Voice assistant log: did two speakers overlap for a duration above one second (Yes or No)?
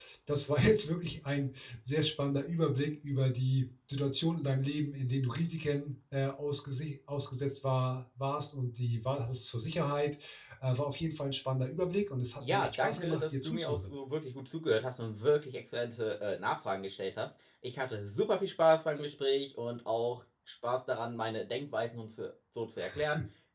Yes